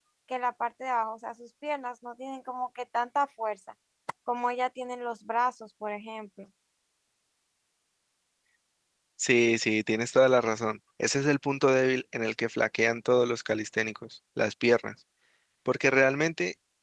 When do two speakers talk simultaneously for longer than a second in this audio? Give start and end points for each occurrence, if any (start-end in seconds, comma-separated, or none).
none